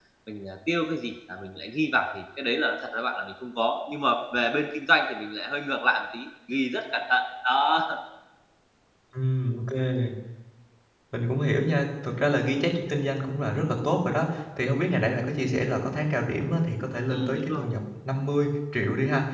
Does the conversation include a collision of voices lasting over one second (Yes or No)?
No